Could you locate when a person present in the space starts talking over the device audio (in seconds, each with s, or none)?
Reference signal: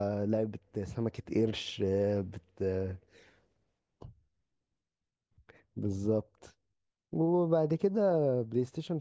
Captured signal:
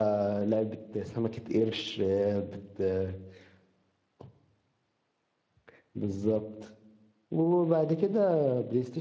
none